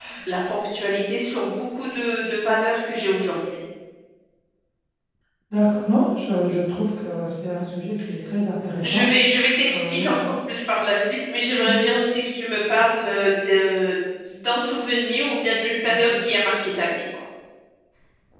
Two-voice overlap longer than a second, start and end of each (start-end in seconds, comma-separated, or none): none